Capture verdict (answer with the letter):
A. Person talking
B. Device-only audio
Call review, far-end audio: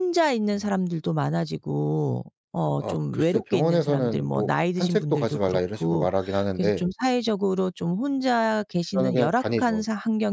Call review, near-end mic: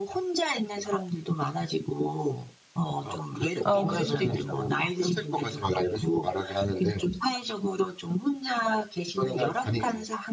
A